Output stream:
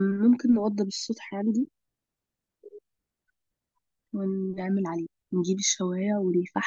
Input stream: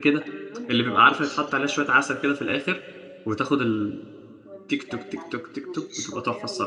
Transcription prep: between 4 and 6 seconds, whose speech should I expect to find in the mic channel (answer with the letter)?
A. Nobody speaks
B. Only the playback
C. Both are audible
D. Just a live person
C